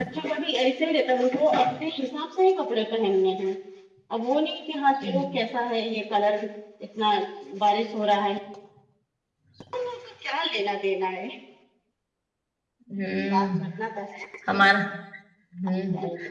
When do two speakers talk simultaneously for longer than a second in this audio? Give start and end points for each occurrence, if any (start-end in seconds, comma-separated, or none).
none